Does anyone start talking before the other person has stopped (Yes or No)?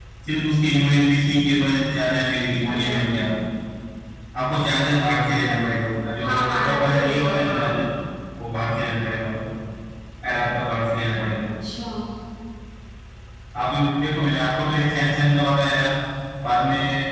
Yes